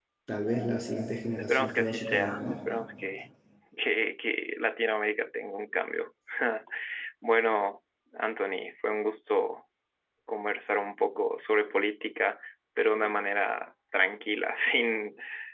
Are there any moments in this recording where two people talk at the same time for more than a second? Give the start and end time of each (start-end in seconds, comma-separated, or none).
1.4-2.6